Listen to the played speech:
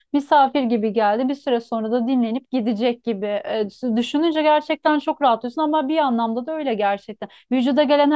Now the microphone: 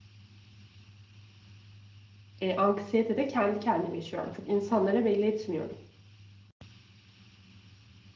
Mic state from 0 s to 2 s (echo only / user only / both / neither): neither